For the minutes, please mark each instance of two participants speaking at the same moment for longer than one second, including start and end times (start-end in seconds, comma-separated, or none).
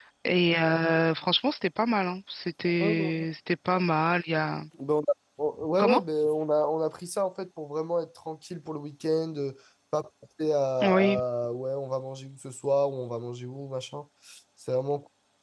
none